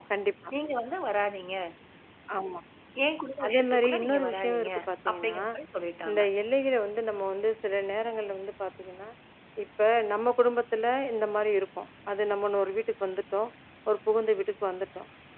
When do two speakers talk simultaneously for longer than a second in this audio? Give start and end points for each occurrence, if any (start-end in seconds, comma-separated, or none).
3.4-4.7